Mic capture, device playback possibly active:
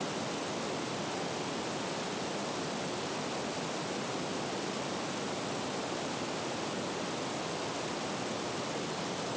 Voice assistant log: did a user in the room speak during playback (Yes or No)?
No